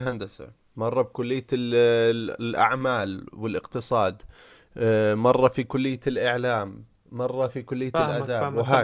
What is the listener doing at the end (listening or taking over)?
taking over